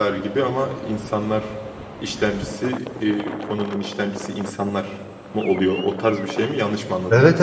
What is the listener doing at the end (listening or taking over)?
taking over